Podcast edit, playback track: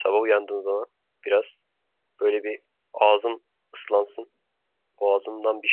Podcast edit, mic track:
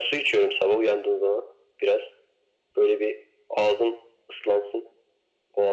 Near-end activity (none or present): none